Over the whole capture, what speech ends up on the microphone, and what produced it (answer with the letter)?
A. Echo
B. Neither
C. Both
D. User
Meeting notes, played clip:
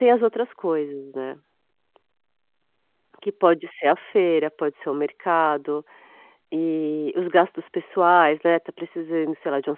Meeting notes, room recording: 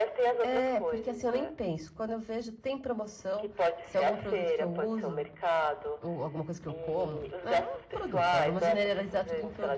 C